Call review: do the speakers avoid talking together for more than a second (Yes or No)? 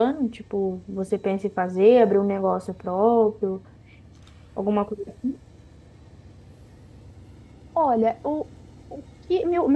Yes